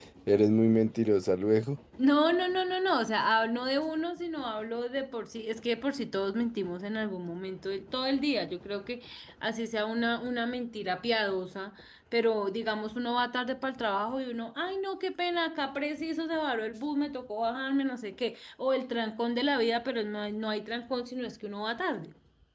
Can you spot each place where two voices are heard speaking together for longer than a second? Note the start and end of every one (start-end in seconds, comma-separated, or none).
none